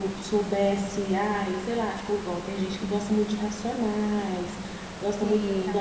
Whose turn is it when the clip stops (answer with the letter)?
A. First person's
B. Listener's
A